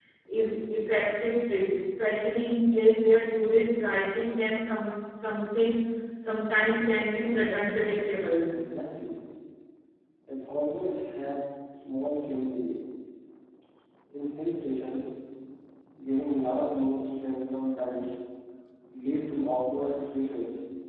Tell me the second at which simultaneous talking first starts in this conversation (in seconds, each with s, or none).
none